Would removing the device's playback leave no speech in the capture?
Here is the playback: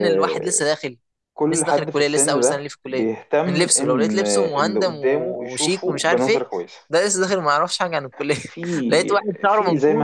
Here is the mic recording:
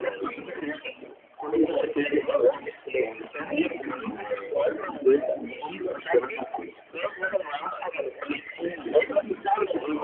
Yes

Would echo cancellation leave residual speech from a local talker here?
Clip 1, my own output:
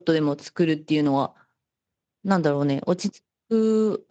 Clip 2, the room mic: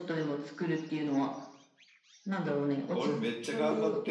Yes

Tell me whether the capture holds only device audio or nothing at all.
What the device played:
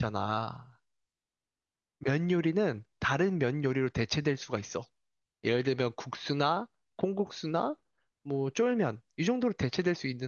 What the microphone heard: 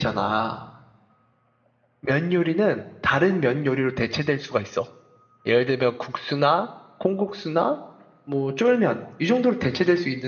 Yes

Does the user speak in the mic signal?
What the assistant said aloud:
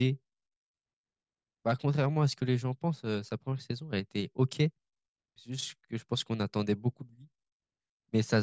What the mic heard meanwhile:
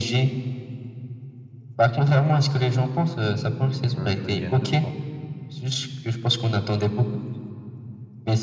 Yes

